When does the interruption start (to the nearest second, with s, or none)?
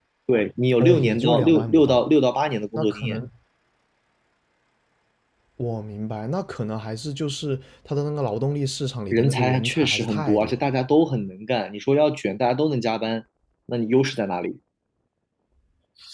1 s